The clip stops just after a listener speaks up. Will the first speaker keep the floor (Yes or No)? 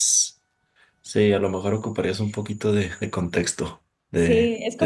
No